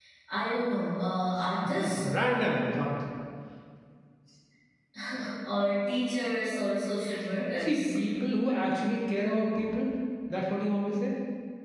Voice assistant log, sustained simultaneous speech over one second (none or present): none